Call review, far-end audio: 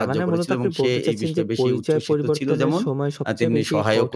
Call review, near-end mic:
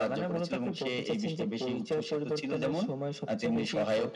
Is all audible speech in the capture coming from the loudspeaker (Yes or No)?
Yes